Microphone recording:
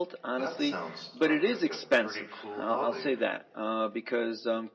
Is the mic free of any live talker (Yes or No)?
No